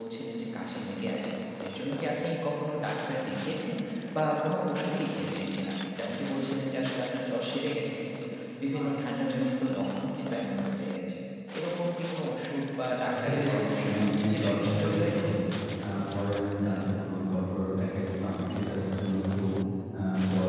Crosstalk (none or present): present